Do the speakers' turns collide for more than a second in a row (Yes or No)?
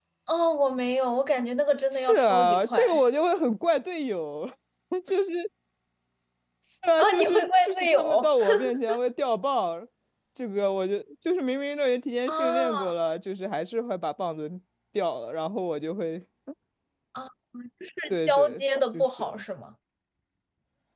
Yes